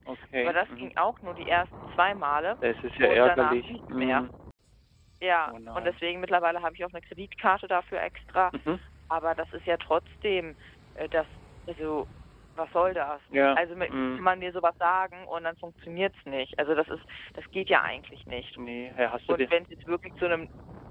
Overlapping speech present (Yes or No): Yes